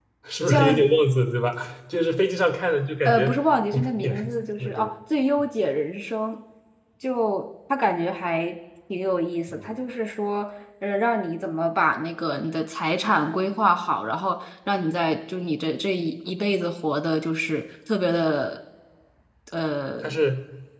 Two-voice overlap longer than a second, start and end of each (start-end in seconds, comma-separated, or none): 3.7-4.9